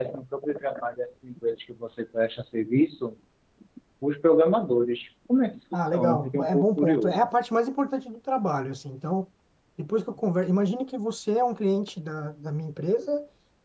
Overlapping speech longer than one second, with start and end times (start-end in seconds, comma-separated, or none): 5.7-7.2